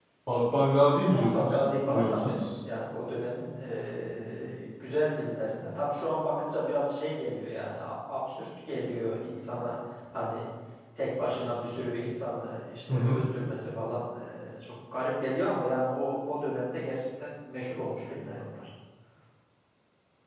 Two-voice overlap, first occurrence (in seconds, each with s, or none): 1.1 s